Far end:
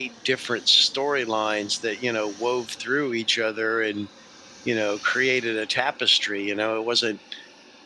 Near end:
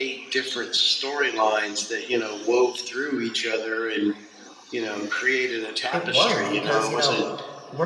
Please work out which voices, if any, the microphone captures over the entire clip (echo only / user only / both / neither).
both